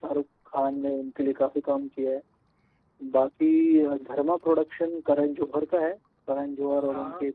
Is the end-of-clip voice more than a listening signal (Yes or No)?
No